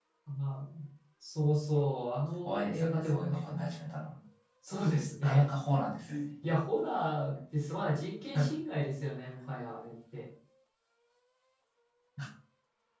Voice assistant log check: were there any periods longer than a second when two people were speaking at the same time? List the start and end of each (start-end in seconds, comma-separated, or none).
2.4-3.8